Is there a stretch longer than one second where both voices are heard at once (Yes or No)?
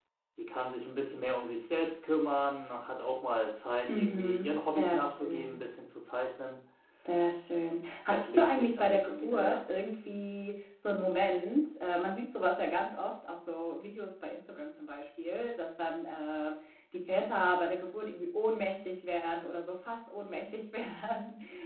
Yes